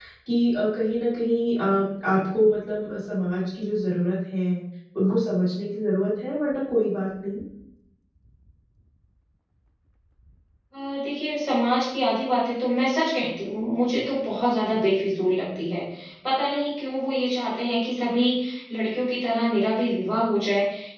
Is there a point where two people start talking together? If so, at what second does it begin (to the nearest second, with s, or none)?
none